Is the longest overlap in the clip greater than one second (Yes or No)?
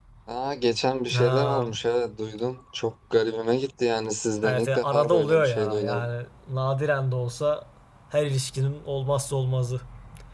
Yes